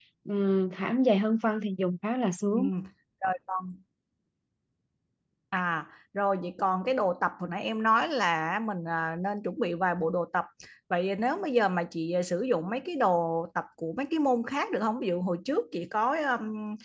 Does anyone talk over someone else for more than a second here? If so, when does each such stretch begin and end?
none

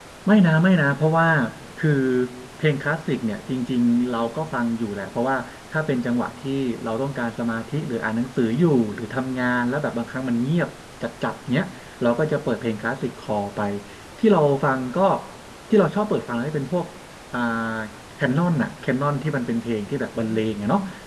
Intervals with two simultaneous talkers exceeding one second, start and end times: none

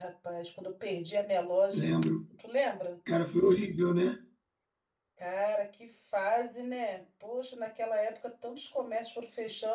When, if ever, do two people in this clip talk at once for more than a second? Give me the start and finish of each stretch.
none

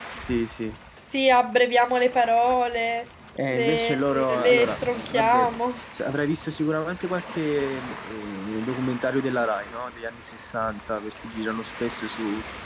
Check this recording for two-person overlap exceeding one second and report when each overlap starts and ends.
3.5-5.5

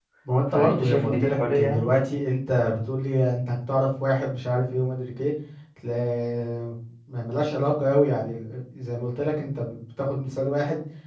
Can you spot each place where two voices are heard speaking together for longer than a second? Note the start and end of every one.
0.5-1.9

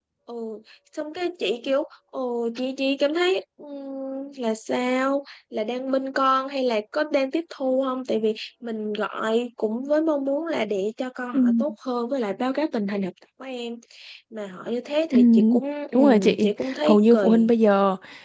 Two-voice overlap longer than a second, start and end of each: 15.9-17.5

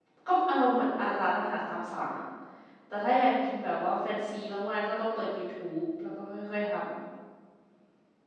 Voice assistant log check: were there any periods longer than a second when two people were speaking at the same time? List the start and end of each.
none

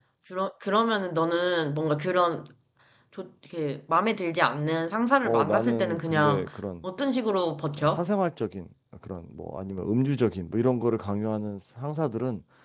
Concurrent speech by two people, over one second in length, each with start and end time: 5.2-6.4

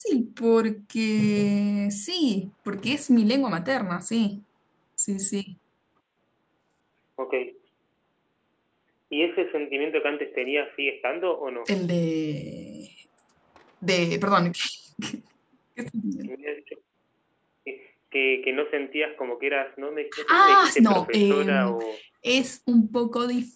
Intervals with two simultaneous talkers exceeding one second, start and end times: 20.3-21.8

